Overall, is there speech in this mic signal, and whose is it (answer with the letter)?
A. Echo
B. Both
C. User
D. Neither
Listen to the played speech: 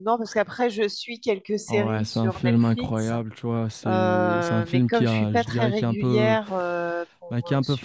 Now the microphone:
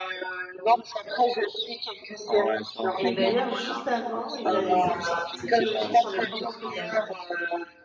B